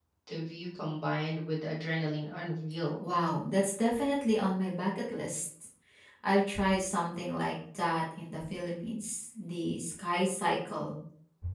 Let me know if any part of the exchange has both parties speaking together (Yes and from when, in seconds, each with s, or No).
No